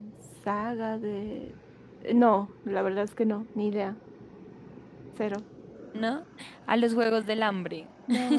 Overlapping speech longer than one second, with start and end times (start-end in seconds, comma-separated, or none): none